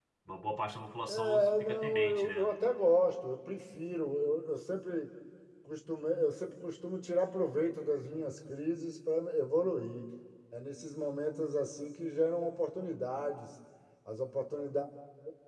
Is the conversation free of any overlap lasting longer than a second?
No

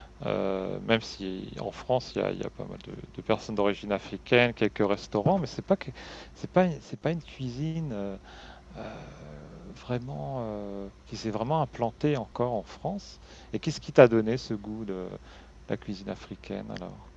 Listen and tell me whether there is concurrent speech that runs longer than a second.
No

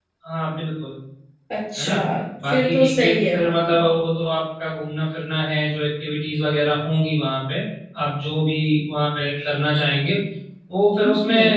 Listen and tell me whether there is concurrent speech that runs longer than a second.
Yes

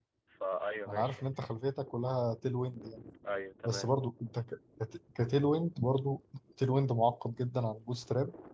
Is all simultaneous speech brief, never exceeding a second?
Yes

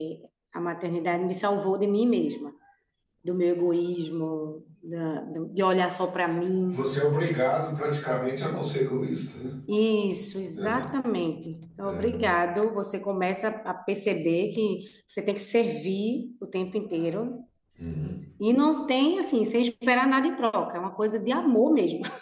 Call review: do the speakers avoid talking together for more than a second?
Yes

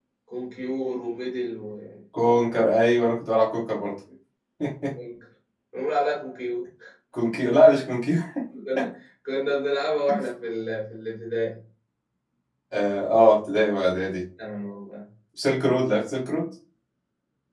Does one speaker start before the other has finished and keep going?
No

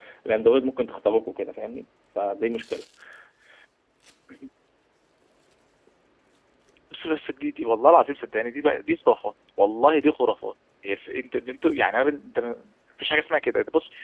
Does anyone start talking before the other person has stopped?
No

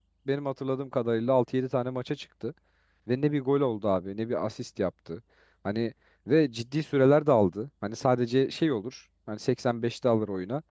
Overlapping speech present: No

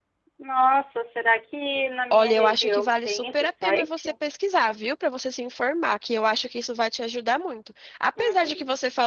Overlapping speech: Yes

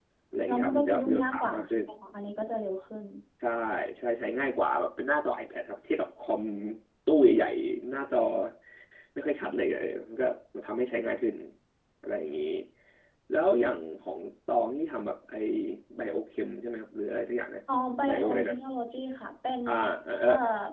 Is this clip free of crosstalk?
No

